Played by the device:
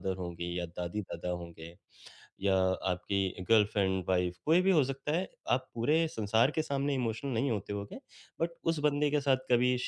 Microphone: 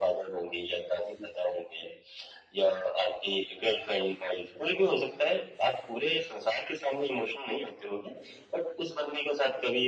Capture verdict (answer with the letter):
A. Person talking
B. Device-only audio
B